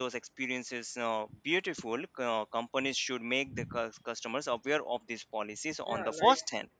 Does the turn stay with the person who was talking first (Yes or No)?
No